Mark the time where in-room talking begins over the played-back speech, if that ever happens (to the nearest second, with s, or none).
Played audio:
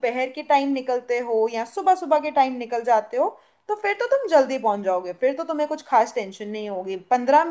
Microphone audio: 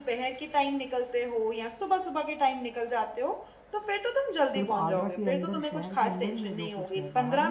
5 s